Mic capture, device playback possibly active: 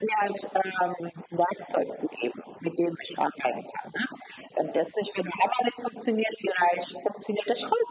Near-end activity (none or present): none